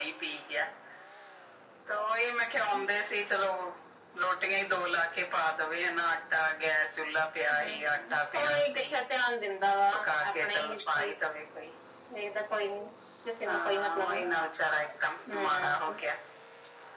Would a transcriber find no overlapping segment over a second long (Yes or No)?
No